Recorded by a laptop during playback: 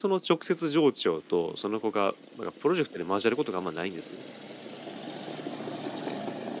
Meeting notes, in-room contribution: present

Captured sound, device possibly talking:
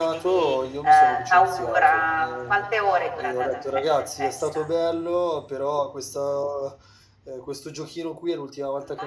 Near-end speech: present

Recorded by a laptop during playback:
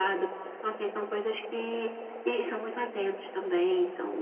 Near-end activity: none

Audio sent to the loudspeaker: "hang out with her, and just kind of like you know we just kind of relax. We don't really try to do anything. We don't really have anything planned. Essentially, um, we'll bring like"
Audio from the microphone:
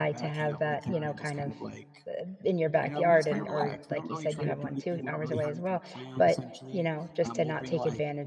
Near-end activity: present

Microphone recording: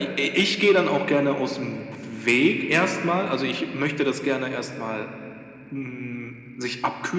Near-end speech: none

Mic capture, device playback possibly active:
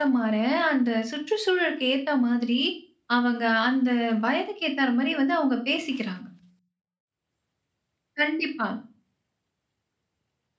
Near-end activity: present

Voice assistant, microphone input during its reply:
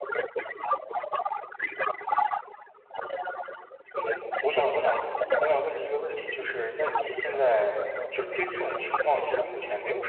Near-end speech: present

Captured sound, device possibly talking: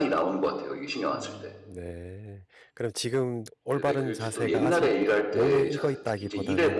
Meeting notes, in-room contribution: present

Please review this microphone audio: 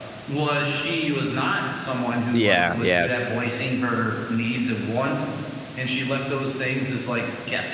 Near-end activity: present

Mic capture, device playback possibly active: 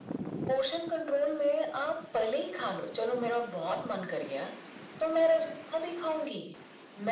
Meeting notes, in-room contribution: none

